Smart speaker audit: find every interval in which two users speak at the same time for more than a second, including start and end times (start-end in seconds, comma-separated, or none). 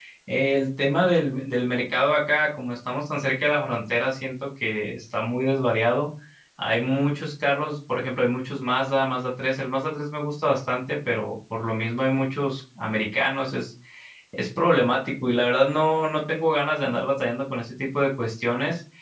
none